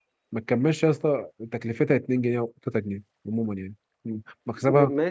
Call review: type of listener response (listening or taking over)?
taking over